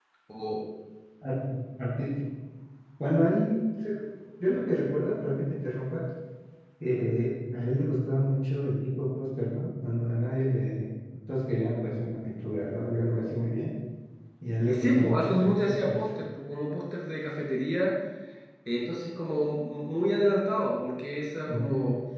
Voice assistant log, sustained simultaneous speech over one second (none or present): present